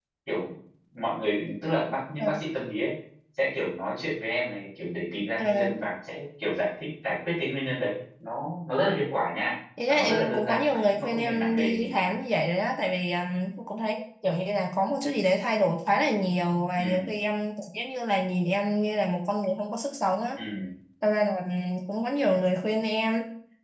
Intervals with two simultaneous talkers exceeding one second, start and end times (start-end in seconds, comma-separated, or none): 9.9-12.1